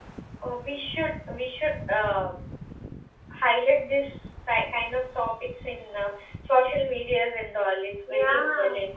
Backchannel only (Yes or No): No